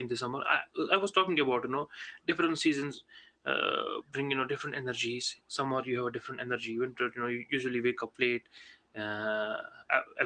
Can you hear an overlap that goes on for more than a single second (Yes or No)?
No